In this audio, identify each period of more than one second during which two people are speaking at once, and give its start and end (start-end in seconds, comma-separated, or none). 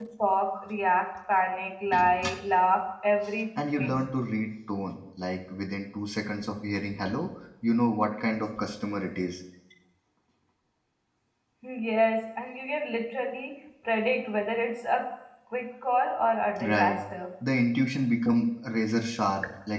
none